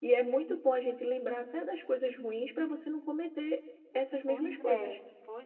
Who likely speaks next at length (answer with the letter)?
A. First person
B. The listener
B